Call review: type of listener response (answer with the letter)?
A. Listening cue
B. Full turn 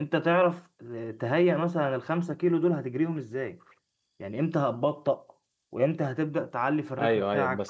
B